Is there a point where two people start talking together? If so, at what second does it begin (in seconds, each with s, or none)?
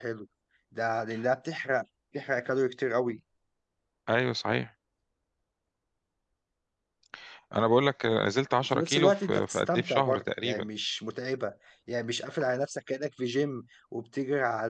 8.7 s